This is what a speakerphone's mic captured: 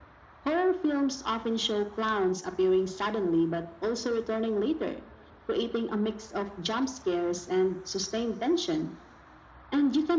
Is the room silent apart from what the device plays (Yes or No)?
Yes